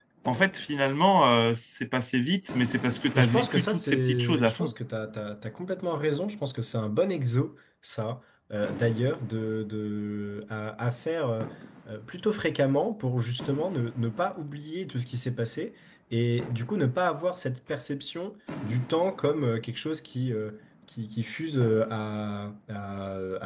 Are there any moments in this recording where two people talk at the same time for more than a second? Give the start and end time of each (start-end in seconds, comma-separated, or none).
3.1-4.7